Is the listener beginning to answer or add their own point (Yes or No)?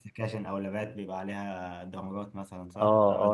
Yes